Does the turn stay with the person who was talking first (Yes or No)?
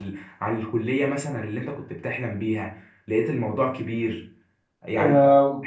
No